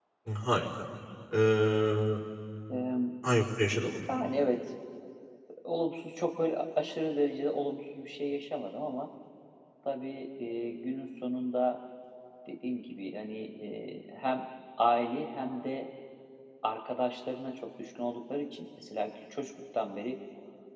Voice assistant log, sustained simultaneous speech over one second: none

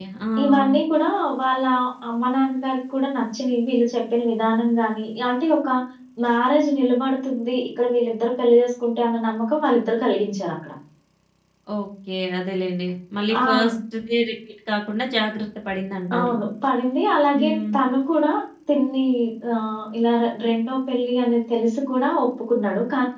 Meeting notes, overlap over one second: none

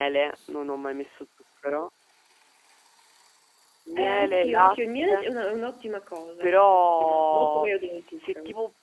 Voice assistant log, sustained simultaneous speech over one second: present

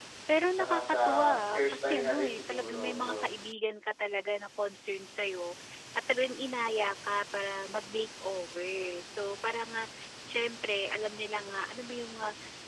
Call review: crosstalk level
present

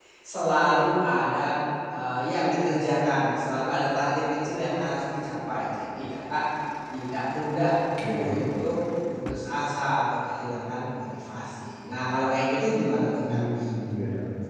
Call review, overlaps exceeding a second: none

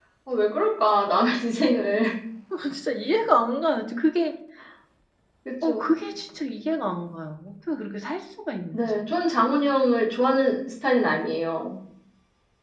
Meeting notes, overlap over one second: none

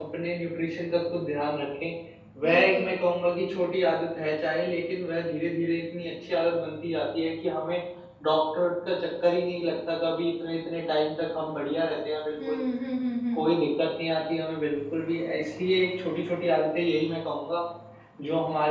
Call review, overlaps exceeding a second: none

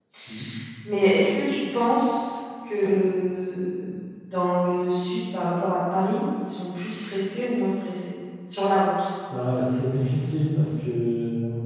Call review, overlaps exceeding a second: none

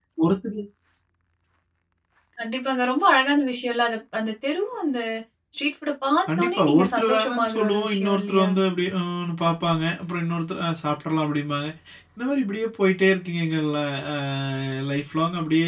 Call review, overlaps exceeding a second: present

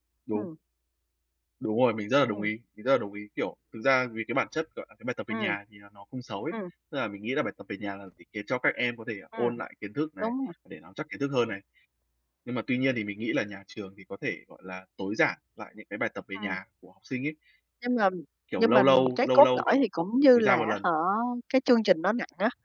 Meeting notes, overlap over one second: present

